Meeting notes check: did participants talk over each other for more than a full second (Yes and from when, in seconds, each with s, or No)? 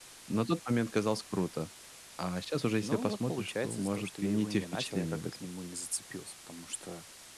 Yes, from 2.8 s